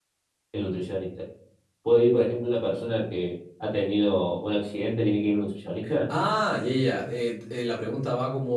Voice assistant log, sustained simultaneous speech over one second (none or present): none